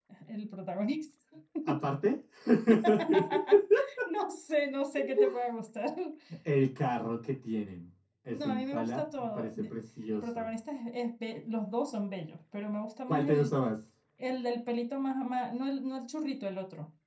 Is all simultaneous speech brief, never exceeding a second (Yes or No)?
No